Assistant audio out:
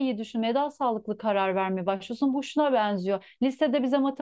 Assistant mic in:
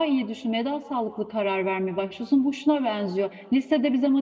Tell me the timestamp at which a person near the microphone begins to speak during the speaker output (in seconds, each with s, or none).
none